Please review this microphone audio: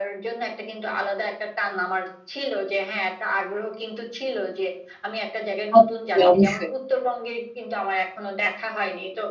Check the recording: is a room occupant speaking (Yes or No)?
Yes